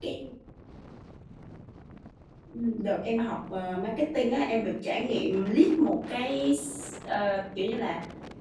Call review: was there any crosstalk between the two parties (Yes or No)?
No